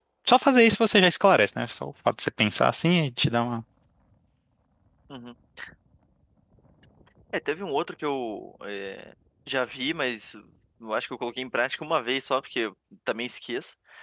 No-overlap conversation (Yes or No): Yes